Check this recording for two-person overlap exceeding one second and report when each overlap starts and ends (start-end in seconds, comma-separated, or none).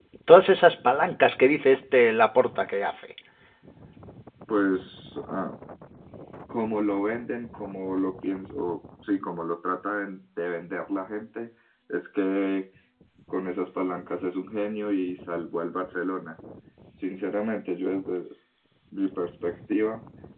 none